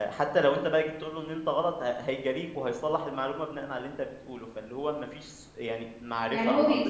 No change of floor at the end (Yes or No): No